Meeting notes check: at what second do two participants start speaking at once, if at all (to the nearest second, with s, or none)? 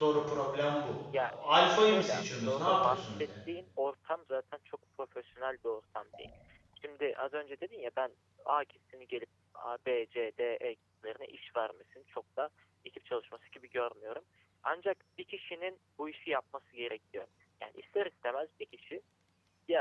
1 s